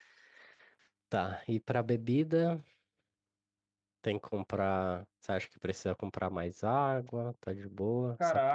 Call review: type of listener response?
taking over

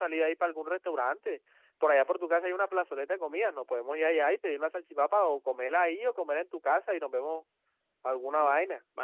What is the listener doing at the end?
taking over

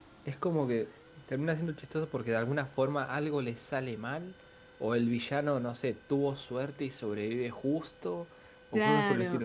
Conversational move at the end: taking over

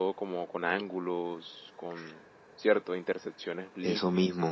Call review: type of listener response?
taking over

